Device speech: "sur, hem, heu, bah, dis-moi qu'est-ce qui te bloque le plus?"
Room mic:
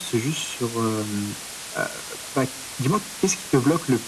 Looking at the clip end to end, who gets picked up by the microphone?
echo only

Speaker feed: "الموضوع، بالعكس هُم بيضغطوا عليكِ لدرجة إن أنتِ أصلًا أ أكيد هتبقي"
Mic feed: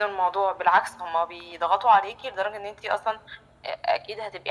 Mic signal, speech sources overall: echo only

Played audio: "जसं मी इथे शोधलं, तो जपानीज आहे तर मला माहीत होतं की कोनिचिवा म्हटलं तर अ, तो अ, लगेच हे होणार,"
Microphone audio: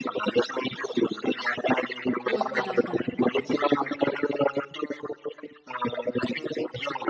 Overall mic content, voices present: both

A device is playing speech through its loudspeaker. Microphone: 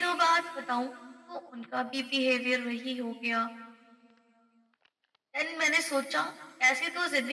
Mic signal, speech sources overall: echo only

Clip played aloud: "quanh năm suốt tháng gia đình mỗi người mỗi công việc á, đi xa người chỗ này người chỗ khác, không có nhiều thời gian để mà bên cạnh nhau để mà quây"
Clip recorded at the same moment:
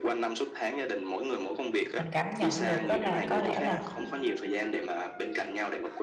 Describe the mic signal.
both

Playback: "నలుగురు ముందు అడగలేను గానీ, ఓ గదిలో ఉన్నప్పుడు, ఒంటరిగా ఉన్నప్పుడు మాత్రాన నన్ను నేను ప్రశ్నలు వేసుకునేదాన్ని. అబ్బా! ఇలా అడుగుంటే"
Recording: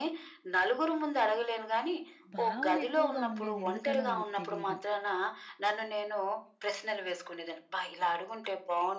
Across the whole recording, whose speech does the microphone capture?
both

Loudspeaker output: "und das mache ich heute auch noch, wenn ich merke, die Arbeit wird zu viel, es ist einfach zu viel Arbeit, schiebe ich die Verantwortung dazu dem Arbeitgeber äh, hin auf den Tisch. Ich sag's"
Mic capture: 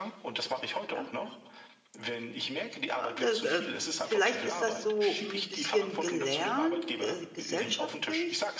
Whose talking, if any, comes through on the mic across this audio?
both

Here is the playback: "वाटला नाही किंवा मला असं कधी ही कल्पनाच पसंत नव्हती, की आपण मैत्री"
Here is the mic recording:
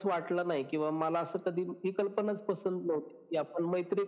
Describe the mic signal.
echo only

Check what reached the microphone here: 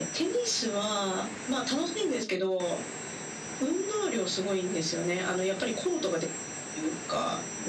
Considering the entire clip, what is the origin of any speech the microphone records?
echo only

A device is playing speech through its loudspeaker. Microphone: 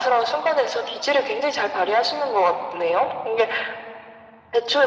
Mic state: echo only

